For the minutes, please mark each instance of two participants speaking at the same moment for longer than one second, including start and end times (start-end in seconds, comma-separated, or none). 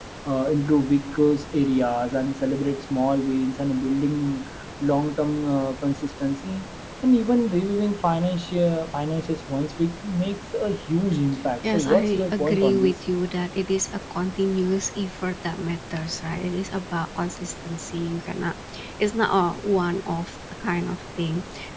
11.7-12.9